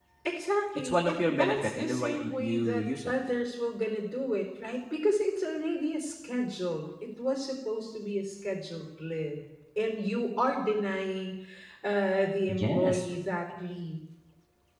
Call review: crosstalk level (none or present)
present